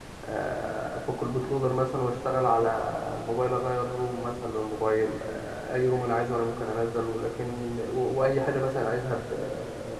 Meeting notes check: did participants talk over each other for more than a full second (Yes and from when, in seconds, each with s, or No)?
No